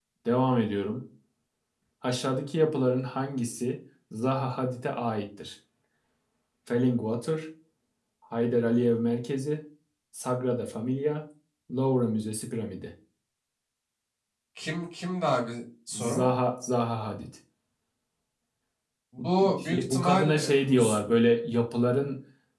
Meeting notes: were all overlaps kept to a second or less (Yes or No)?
No